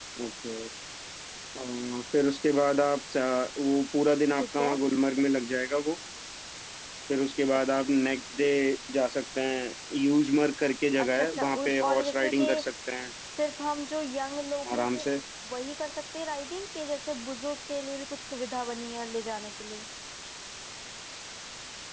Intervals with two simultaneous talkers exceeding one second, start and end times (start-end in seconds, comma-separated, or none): 11.0-12.5